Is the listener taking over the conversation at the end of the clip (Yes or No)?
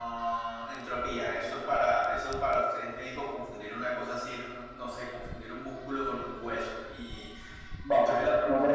Yes